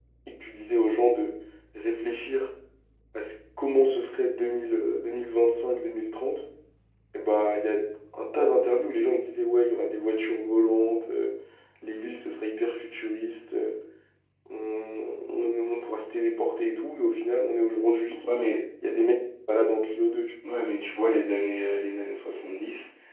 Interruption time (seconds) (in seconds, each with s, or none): none